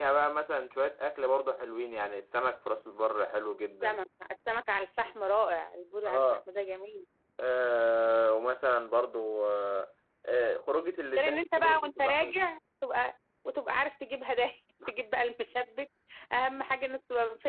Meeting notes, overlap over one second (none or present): present